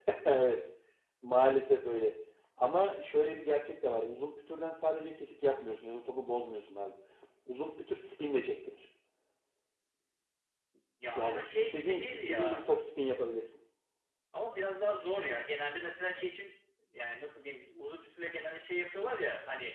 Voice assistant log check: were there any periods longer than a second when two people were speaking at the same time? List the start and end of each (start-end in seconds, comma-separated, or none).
11.2-12.7